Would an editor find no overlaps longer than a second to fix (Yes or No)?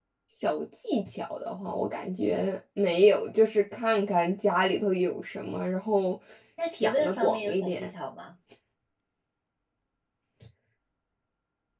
No